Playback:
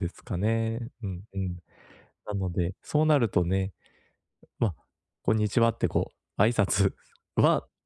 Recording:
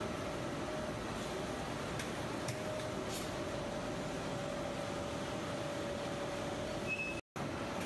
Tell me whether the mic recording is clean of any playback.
Yes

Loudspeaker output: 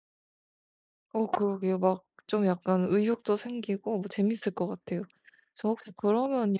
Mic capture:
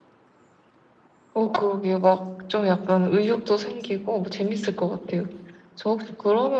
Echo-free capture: No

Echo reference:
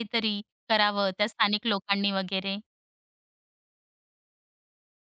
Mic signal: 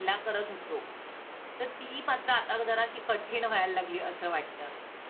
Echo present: No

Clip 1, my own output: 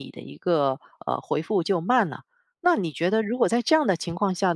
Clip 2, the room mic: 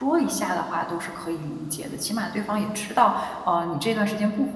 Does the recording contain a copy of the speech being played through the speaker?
No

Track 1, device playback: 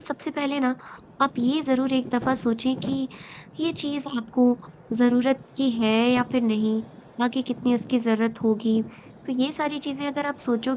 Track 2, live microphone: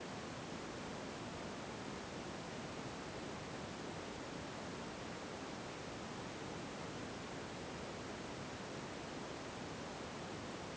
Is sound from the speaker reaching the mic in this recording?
No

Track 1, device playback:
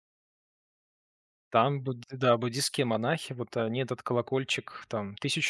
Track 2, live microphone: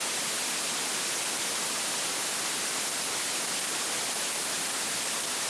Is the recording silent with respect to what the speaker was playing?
Yes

